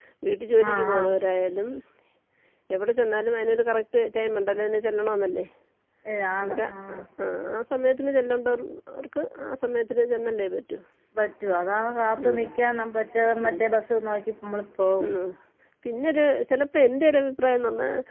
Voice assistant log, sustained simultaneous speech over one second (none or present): none